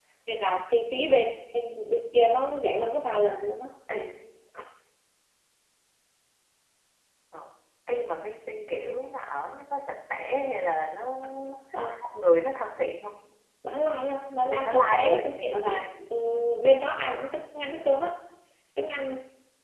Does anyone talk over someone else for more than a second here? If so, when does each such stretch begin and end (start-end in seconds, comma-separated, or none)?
14.5-15.8